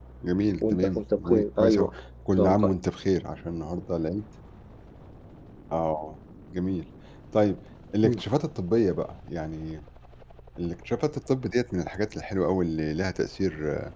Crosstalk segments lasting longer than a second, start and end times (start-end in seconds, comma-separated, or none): 0.6-1.9